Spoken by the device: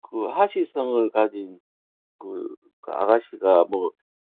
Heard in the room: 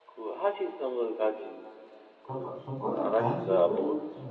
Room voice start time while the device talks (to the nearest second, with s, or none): 2 s